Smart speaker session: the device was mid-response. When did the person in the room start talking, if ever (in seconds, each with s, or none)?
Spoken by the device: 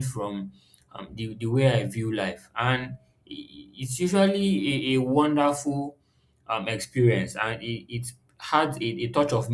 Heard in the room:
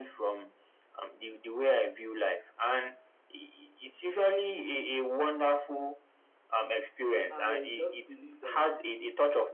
7.3 s